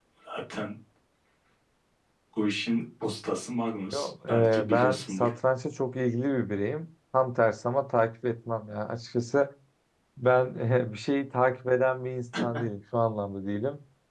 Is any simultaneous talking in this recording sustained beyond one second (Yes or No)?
Yes